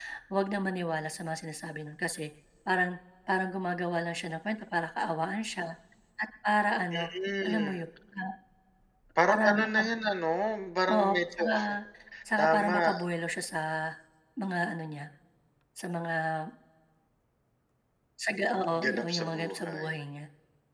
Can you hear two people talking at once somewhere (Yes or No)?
Yes